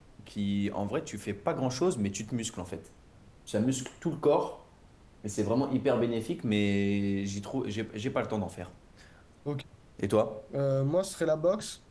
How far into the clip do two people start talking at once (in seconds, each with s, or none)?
none